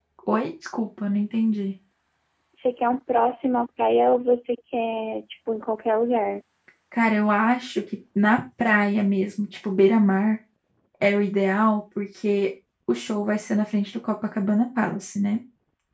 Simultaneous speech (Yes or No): No